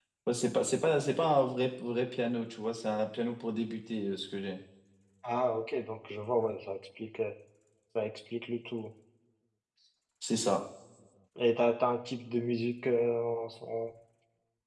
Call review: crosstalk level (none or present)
none